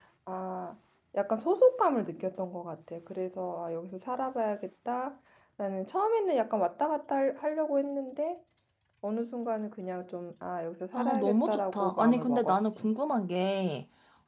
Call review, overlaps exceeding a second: present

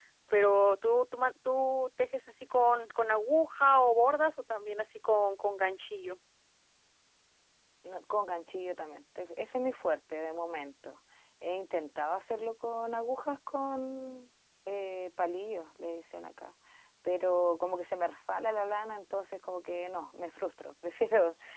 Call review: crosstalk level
none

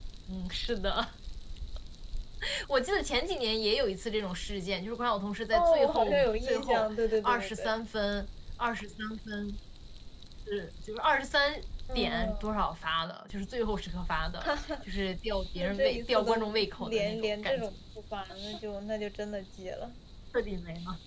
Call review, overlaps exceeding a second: present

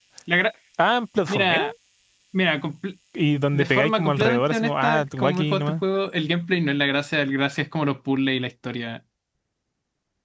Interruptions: present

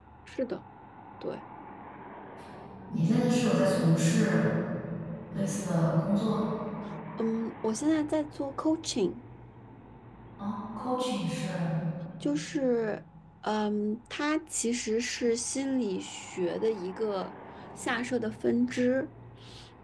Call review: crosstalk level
none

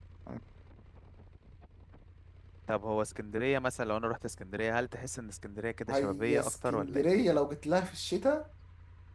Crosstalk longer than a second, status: present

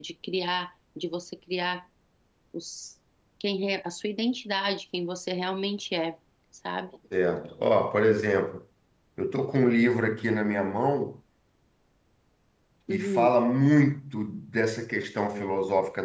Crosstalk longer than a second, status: none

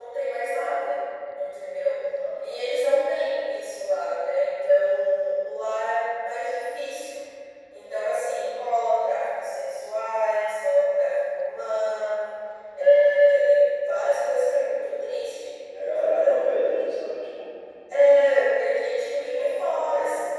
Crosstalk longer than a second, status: present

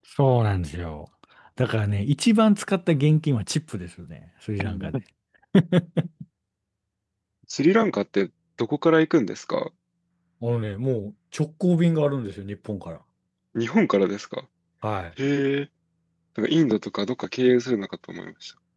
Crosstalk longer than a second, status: none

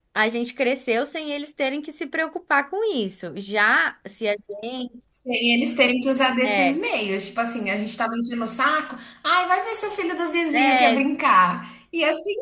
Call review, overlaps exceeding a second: none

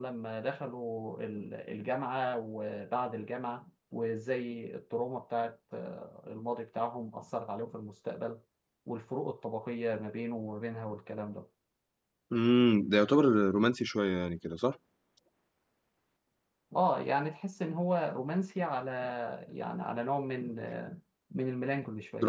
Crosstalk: none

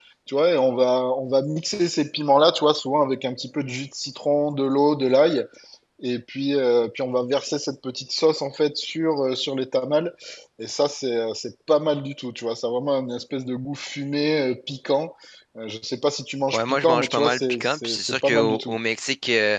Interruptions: present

